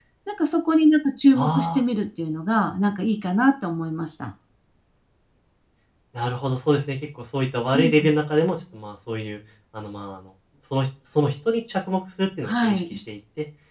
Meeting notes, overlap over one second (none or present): none